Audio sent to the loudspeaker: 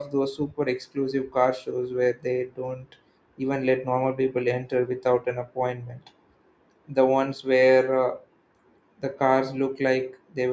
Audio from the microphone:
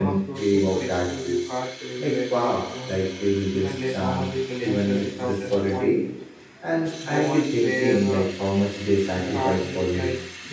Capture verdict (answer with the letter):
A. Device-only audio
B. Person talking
B